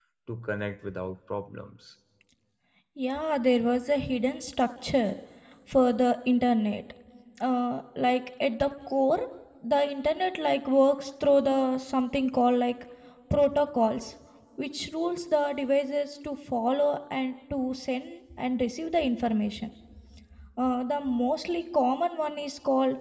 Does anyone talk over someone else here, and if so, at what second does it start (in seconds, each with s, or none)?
none